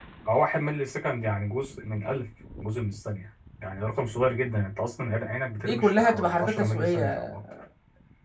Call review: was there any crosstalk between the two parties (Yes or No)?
Yes